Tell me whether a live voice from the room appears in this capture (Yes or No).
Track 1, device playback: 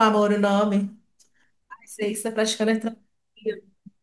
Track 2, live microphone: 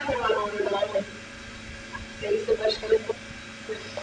No